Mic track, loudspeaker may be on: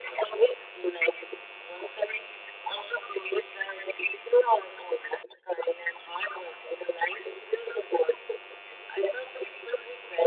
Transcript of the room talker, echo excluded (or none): none